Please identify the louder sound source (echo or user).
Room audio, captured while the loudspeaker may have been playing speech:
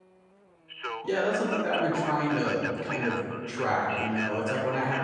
user